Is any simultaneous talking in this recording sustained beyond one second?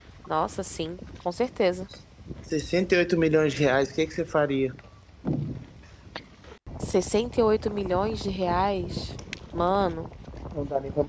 No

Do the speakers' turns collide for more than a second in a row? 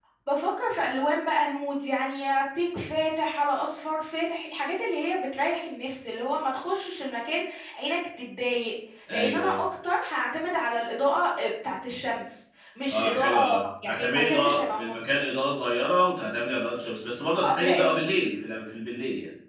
Yes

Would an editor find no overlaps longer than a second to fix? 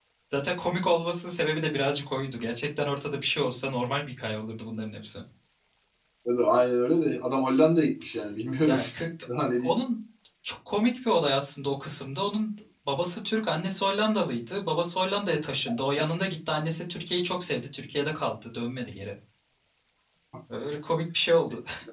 Yes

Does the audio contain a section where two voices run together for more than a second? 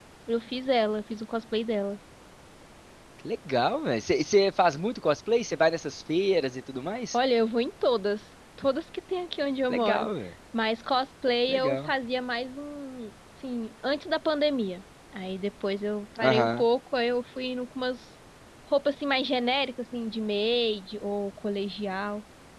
No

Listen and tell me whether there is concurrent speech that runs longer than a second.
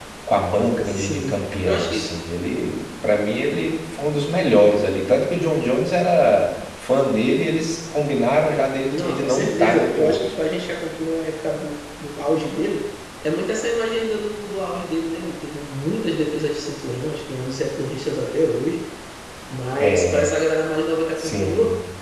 Yes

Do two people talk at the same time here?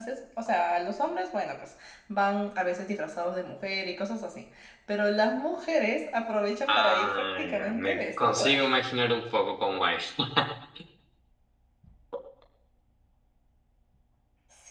Yes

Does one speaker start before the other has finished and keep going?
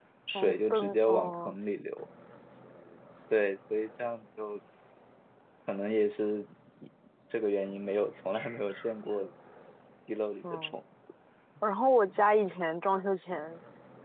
Yes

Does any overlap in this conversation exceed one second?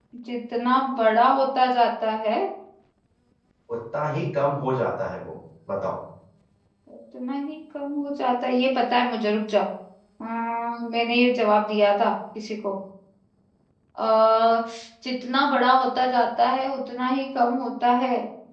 No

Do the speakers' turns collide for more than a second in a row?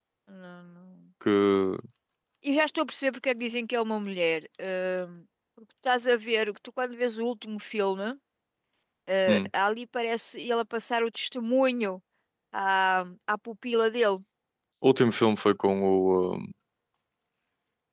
No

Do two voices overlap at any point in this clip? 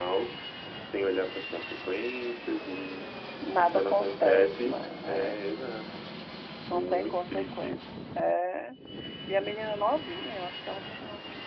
Yes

